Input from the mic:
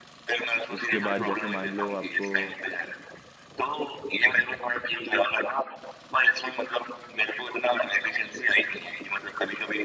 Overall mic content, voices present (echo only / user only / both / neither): both